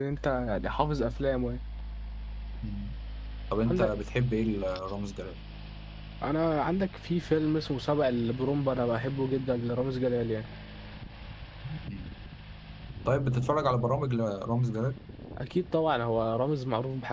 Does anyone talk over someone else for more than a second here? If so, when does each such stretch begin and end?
none

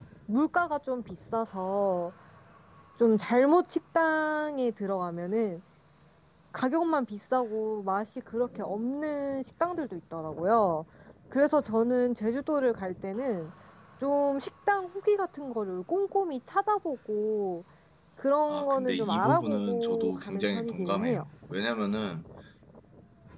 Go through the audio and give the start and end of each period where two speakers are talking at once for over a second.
18.5-21.2

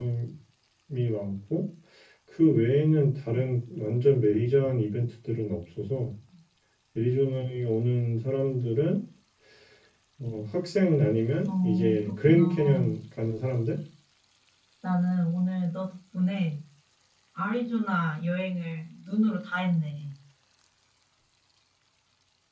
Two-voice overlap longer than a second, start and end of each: 11.6-12.9

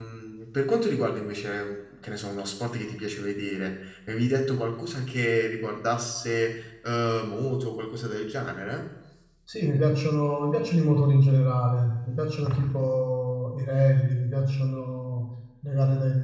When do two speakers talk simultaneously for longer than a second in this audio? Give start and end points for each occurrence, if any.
none

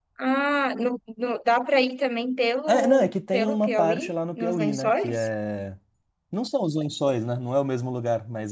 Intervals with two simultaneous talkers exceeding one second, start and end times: 2.7-5.3

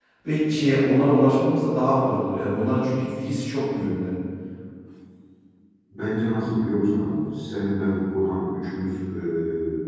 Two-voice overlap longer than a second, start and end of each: none

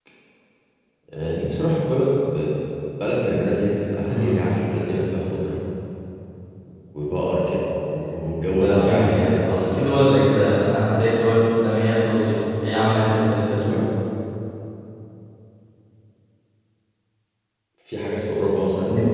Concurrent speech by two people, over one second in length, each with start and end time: 8.6-9.9

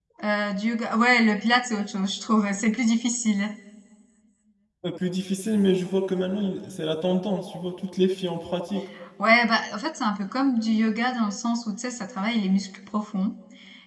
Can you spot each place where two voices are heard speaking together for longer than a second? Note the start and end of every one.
none

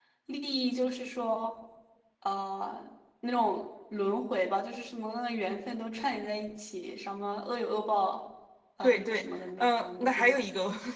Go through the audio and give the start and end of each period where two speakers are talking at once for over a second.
8.8-10.5

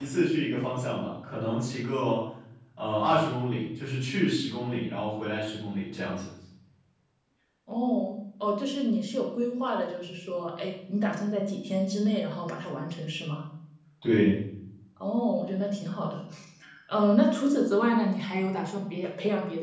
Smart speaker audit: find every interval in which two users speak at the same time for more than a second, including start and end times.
none

